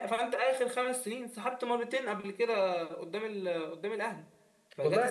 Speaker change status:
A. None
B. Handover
B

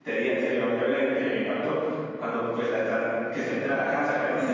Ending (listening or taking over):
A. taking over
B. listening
B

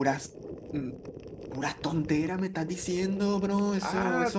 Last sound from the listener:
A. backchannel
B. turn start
B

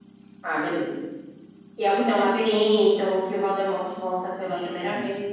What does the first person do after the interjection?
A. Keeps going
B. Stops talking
B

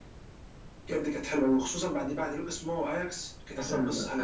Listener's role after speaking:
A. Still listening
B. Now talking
B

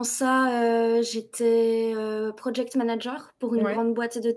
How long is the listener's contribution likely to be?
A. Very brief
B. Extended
A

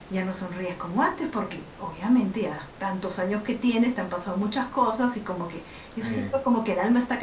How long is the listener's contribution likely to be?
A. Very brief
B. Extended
A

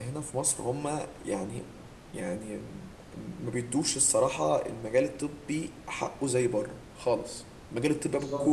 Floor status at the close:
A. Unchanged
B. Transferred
A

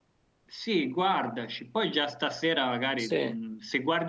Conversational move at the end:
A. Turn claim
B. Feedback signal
B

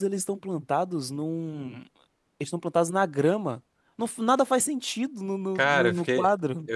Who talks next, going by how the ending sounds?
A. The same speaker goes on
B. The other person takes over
B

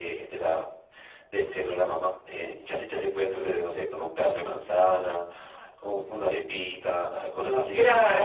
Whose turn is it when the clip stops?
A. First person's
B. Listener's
B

